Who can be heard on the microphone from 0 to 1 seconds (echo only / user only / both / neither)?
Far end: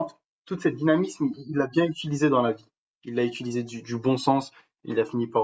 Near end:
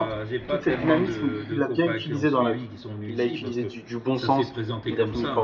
both